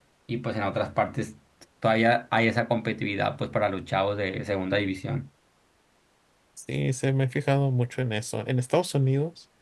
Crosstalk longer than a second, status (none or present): none